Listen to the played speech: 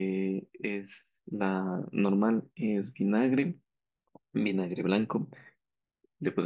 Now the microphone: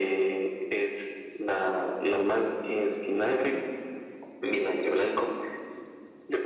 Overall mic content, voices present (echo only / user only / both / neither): echo only